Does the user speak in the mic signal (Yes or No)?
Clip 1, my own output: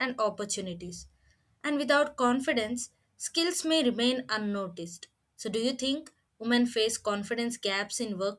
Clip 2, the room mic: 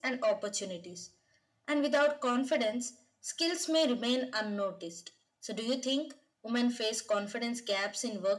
No